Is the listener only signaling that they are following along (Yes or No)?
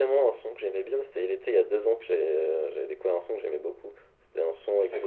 Yes